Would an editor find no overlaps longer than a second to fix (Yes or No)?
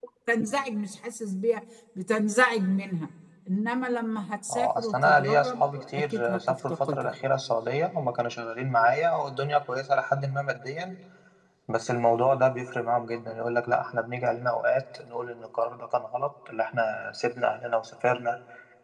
No